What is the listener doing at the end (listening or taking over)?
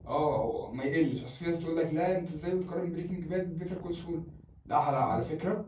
listening